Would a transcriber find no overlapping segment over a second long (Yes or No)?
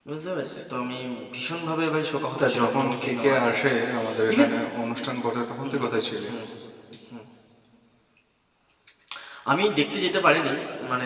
No